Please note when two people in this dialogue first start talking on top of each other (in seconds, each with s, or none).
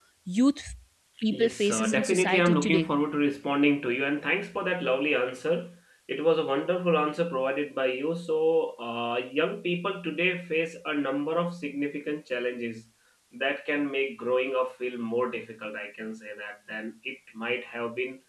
1.3 s